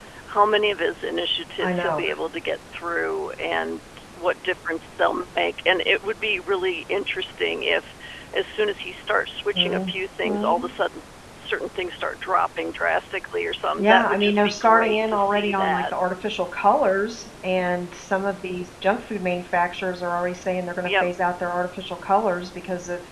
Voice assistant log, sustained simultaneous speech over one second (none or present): present